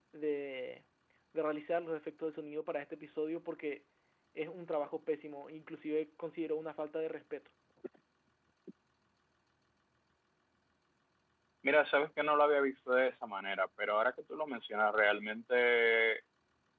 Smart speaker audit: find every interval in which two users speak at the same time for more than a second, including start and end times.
none

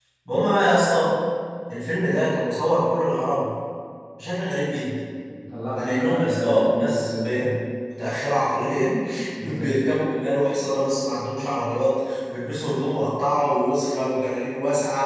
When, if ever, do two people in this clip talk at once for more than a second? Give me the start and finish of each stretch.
5.8-7.3

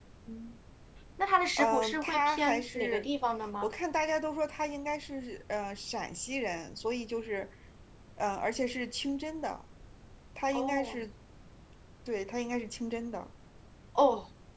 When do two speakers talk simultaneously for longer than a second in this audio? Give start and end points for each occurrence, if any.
1.6-3.1

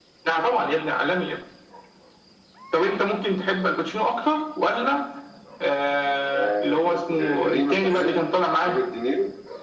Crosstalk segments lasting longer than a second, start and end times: 6.3-8.2

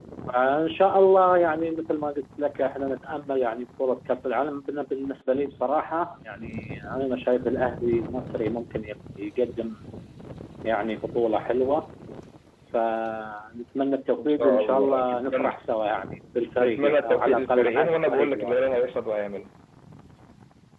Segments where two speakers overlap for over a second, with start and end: 14.2-15.5, 16.6-18.6

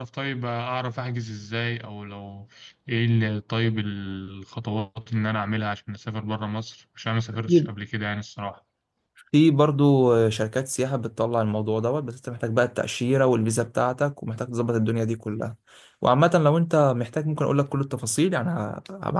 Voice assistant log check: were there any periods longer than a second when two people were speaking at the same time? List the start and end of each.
none

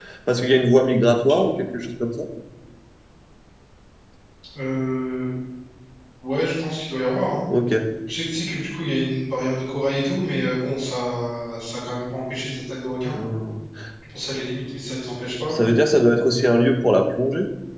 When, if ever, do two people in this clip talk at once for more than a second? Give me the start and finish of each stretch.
none

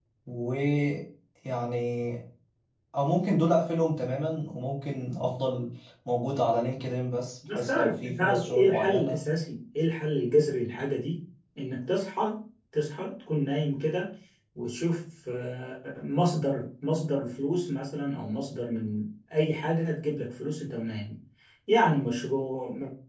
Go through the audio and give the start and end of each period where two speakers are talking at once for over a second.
7.5-9.2

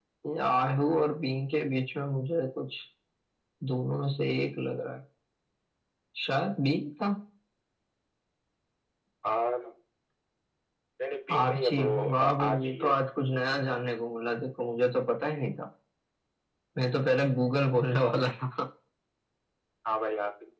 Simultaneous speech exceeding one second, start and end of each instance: 11.4-12.9

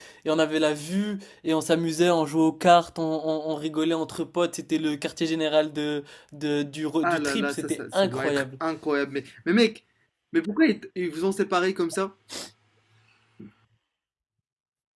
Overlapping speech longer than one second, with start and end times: 7.0-8.4

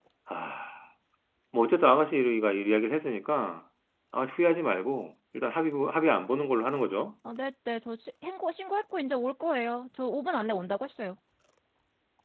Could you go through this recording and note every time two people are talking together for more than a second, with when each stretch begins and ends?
none

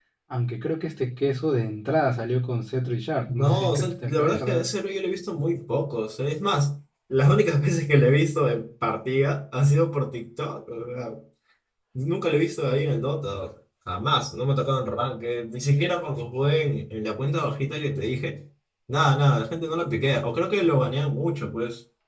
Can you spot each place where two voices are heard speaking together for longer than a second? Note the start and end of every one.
3.4-4.7

